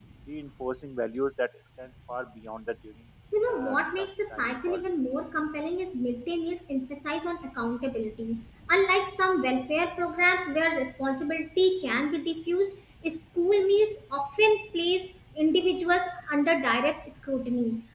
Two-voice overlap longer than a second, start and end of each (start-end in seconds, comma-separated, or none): 3.5-4.8